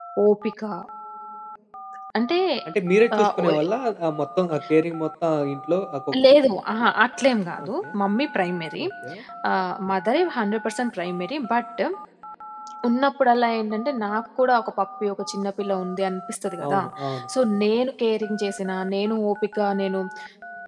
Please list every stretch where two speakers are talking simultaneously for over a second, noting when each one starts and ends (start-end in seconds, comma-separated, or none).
none